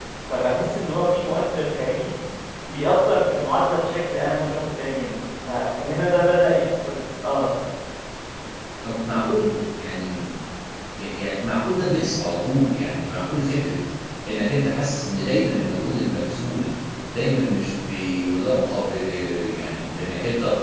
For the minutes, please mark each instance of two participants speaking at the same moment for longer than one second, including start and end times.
none

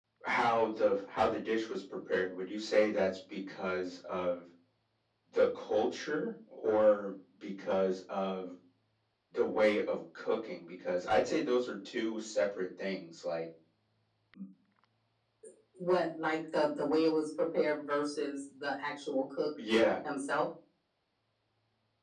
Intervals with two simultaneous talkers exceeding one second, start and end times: none

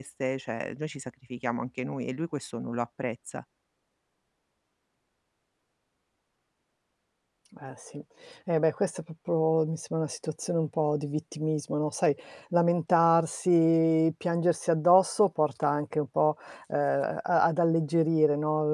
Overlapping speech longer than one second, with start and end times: none

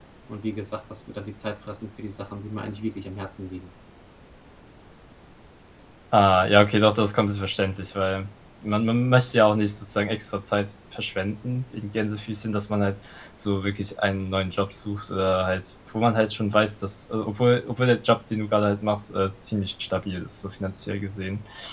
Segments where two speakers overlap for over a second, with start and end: none

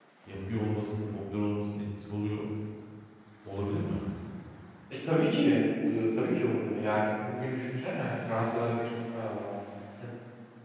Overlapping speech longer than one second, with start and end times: none

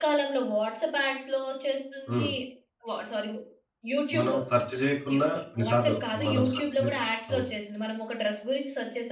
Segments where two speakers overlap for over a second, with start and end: 5.6-6.9

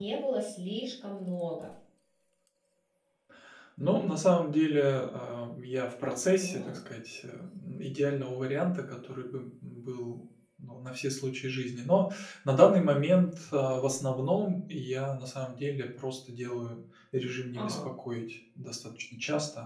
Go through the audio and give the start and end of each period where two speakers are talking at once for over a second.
none

